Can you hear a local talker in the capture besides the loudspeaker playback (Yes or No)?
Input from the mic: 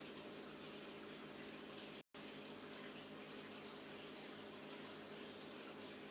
No